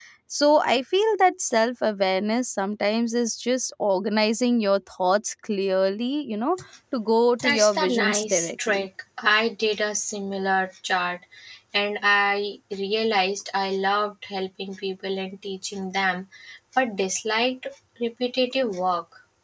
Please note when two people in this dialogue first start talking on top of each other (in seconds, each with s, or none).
7.4 s